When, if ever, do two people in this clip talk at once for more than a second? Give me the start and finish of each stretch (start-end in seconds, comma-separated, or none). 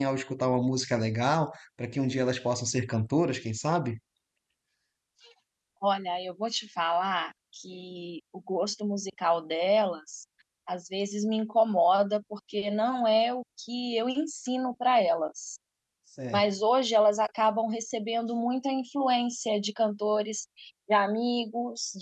none